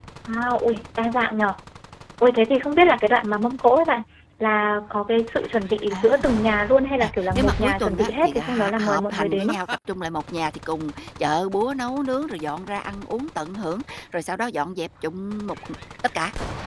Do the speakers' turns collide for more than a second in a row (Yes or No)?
Yes